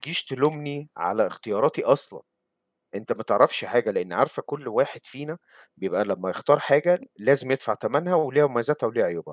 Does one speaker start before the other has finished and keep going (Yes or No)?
No